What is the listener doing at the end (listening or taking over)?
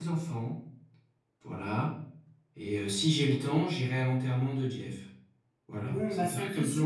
taking over